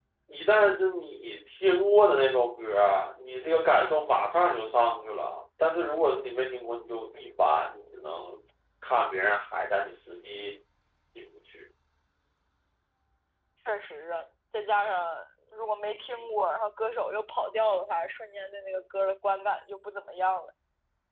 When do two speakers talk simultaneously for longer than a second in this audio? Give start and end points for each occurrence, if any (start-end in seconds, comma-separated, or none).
none